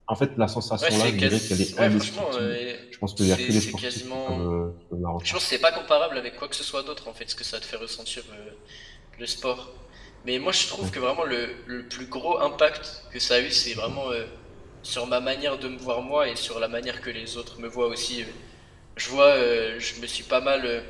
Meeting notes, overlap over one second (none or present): present